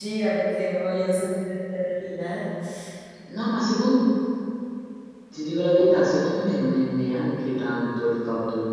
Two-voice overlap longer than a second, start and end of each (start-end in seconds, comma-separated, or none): none